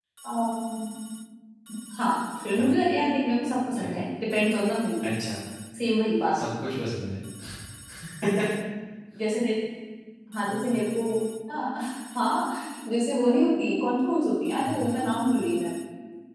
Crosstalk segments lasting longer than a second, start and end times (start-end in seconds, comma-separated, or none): none